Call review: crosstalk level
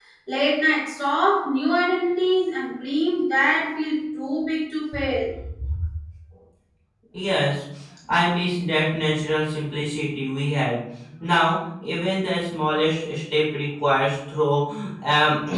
none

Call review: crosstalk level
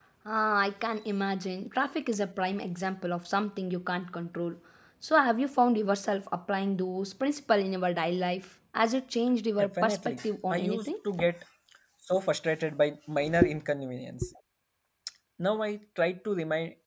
present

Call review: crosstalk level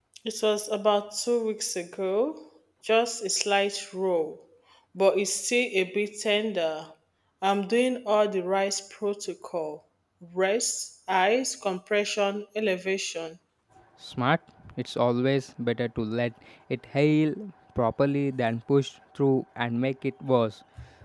none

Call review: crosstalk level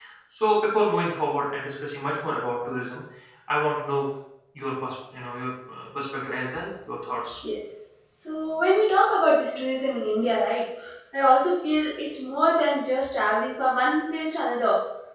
none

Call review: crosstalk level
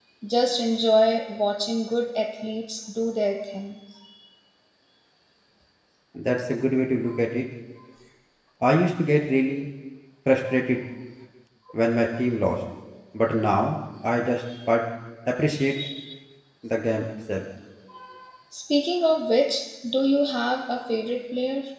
none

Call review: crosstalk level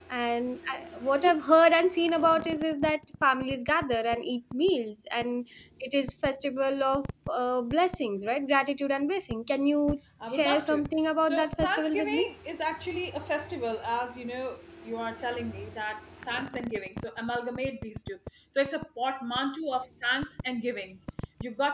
present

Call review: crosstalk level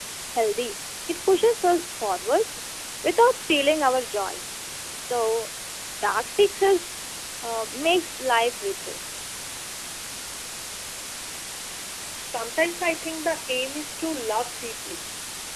none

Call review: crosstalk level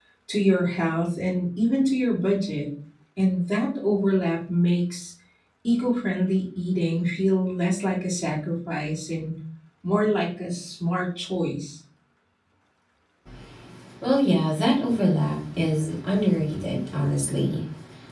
none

